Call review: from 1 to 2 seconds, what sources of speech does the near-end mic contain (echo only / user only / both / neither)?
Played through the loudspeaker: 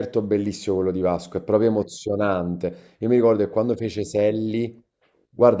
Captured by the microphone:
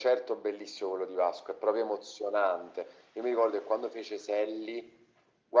echo only